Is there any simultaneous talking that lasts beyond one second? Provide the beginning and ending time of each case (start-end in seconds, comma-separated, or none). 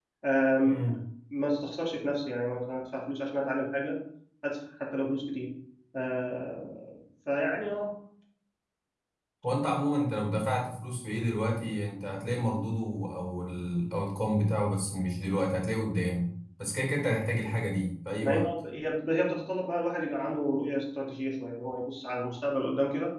none